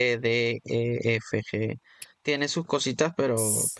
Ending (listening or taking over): taking over